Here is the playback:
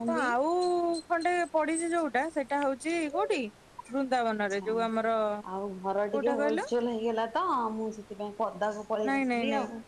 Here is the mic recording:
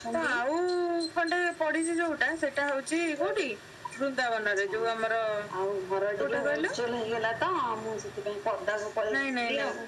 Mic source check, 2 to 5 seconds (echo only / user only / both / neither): echo only